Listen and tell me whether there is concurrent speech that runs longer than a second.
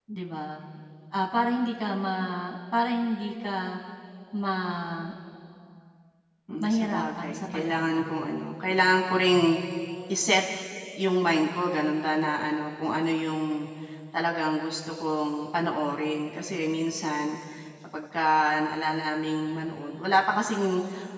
Yes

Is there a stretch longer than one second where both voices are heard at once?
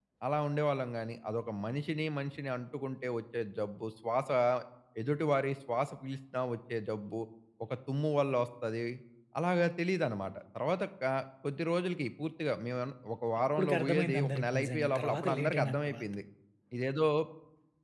Yes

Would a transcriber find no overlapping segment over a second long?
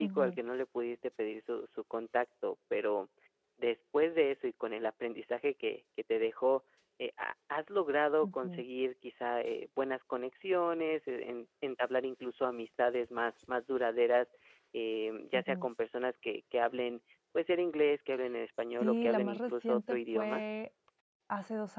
No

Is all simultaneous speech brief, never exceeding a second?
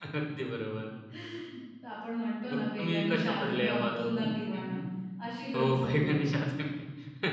No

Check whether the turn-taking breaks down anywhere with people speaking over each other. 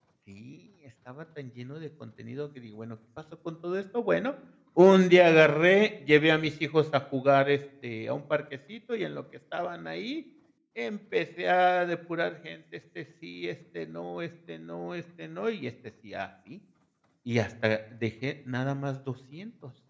No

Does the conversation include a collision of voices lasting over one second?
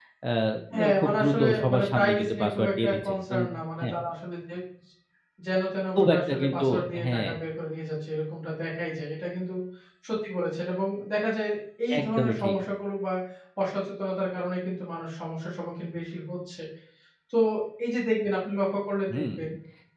Yes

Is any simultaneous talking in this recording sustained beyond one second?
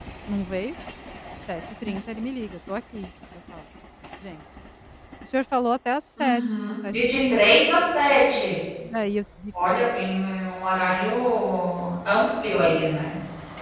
Yes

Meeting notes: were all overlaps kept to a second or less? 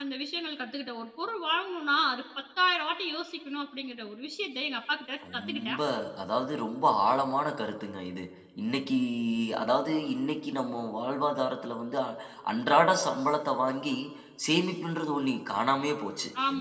Yes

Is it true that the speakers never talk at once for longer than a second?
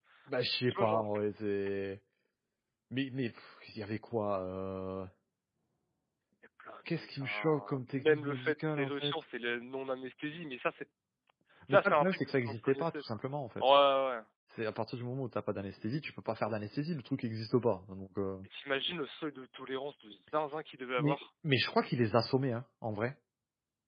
No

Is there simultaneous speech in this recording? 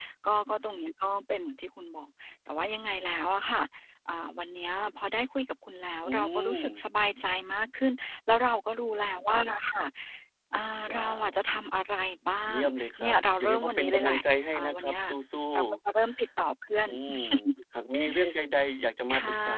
Yes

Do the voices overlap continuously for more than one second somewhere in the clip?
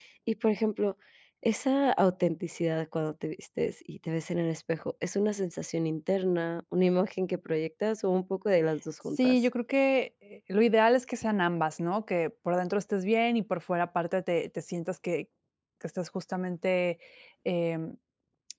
No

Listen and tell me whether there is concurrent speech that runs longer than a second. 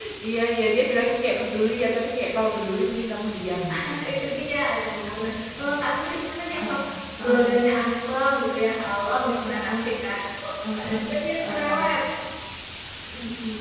No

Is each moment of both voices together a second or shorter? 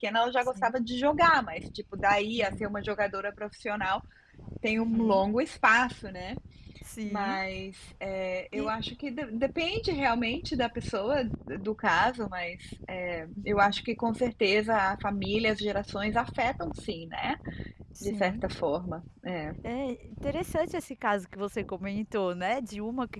Yes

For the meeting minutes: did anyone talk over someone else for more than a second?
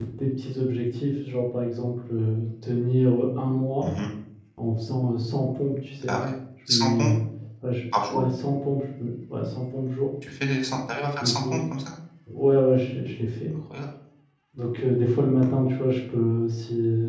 No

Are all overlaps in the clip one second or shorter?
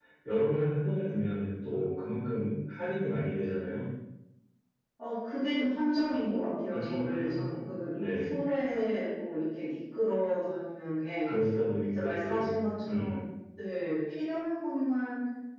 No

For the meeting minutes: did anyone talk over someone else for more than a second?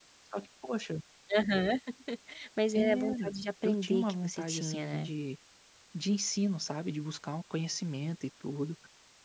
Yes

